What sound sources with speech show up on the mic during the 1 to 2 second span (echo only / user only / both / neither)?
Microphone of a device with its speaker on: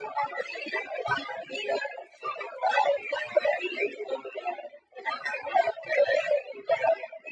echo only